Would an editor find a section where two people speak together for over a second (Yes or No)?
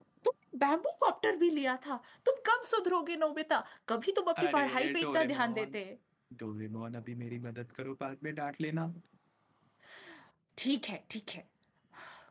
Yes